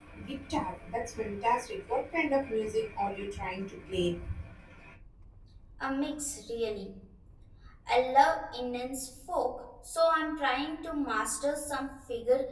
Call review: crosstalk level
none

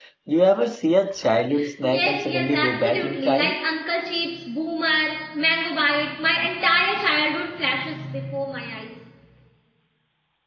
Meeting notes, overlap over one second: present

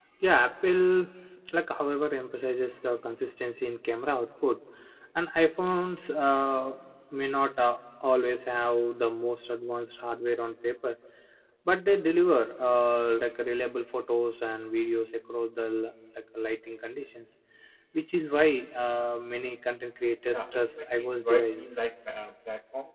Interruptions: present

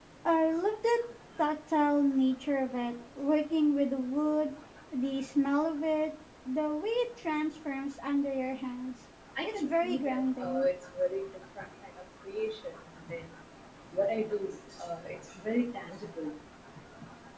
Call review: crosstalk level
present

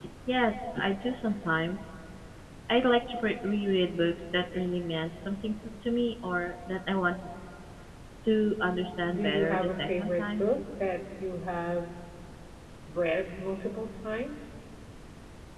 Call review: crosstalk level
present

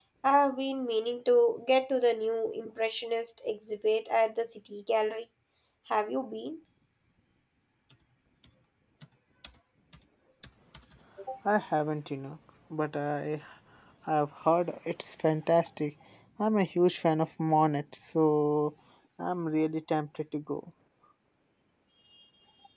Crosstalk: none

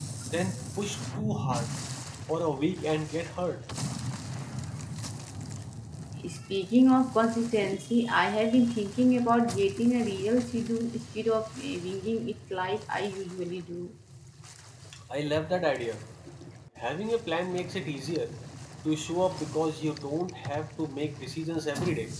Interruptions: none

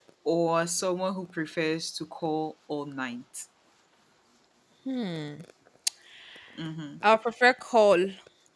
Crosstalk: none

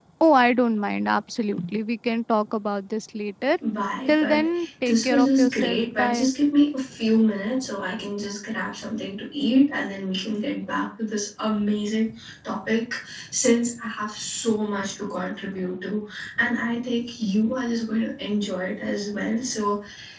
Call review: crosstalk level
present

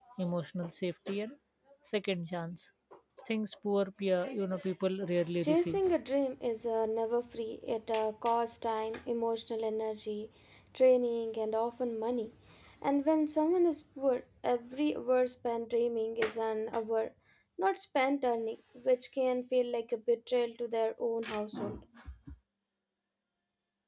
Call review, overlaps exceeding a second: none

